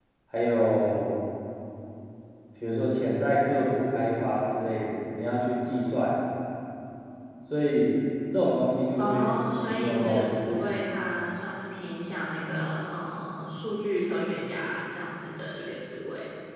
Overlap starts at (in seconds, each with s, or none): 9.0 s